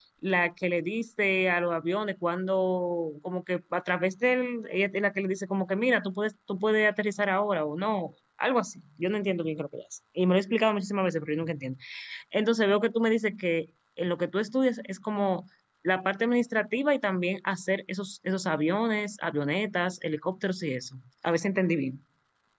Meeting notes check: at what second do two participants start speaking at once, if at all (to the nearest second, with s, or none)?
none